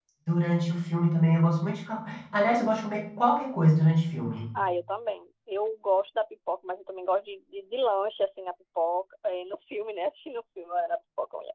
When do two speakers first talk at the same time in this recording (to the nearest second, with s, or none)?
none